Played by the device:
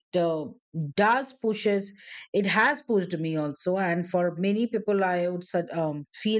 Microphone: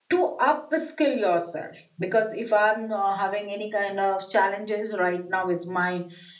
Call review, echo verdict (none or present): none